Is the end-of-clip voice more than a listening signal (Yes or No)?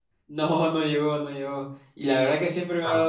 No